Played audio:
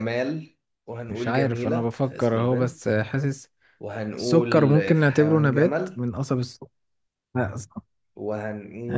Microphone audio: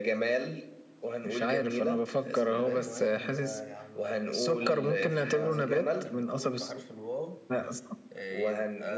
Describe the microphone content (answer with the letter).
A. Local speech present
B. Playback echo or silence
A